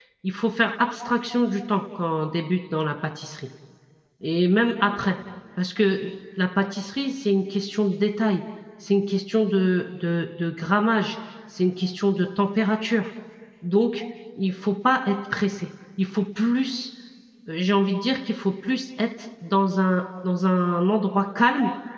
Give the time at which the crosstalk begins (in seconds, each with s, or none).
none